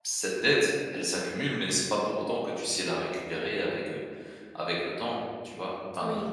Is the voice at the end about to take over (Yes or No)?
Yes